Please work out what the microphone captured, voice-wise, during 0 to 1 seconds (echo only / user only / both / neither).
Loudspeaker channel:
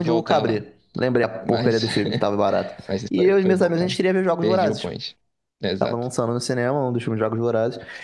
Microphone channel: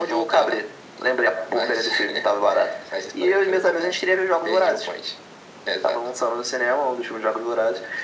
echo only